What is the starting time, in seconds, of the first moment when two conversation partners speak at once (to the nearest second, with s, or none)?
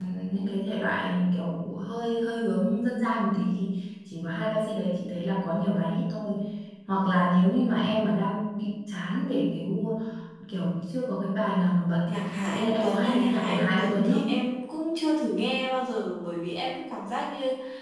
12 s